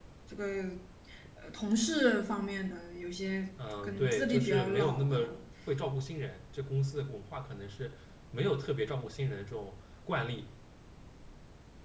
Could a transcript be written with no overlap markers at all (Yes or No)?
No